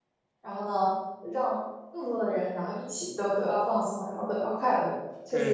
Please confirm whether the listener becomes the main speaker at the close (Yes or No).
Yes